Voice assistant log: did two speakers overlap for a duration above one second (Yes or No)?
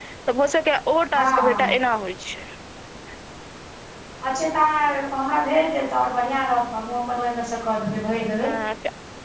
No